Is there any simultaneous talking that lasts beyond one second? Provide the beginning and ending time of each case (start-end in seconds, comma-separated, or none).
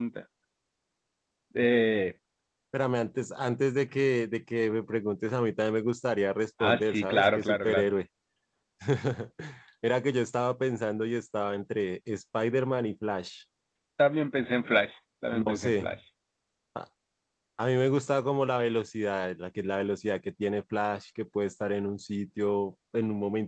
6.6-7.9